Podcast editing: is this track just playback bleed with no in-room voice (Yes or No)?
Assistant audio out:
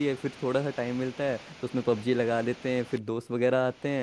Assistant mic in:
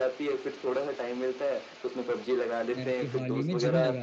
No